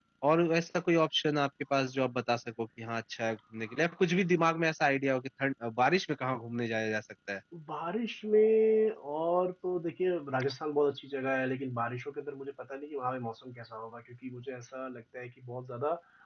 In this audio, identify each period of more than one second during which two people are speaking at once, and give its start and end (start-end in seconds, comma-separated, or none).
none